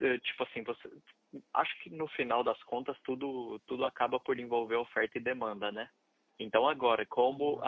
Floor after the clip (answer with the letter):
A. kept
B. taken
A